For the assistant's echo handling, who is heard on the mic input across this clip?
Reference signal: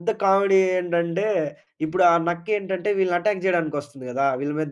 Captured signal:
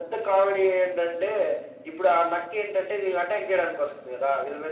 echo only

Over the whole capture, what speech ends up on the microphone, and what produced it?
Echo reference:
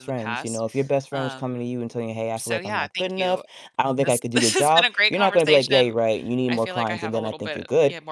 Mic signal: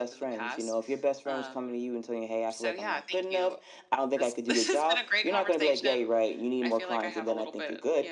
echo only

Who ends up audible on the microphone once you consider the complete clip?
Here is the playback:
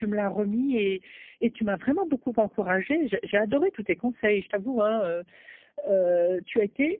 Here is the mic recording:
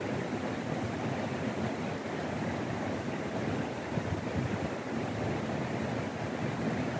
neither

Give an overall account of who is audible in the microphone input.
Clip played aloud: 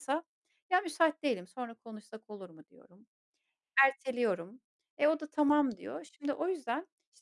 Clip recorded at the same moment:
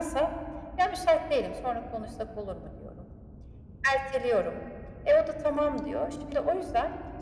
echo only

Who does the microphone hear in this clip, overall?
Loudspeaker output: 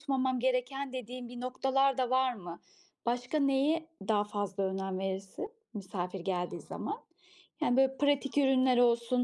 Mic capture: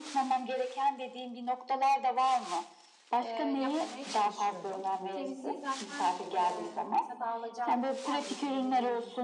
both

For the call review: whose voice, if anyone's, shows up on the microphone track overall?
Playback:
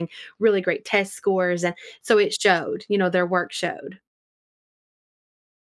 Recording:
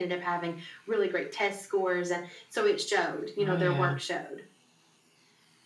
both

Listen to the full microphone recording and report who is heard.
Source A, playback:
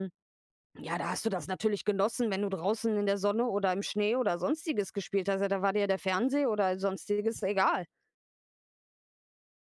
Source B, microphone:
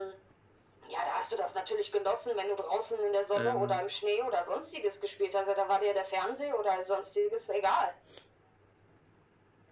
both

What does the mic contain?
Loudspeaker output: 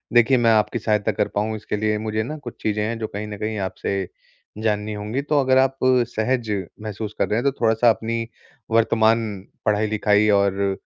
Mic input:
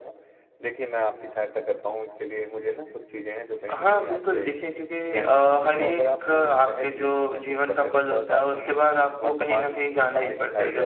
both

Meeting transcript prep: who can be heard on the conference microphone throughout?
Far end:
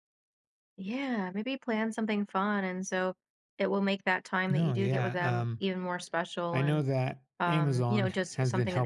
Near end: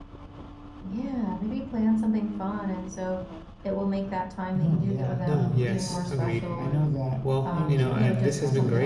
both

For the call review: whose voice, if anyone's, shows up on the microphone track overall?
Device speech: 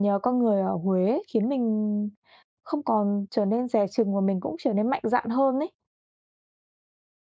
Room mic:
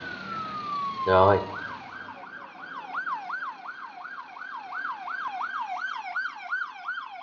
user only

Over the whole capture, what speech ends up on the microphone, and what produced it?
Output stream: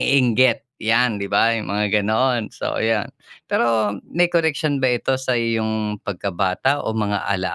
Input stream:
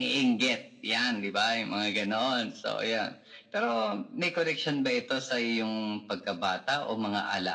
echo only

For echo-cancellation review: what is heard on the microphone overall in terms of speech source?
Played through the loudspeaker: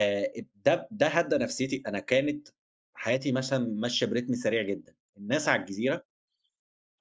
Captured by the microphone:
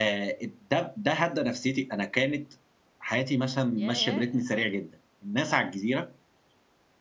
both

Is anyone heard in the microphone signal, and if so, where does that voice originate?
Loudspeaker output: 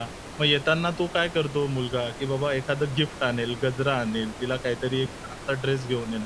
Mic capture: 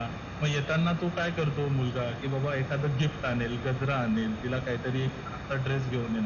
echo only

